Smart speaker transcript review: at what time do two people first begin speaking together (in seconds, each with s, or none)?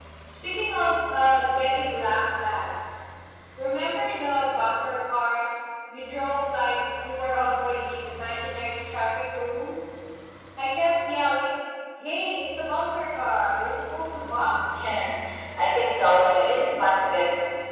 none